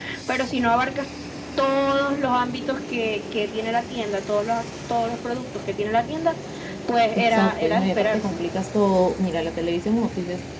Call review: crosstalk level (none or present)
present